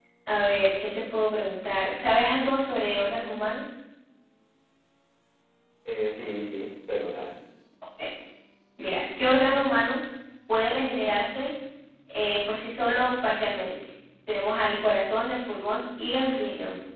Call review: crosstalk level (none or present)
none